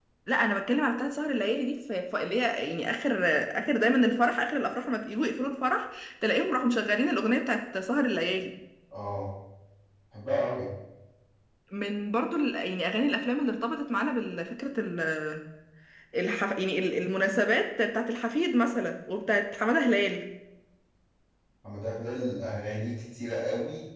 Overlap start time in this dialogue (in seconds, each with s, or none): none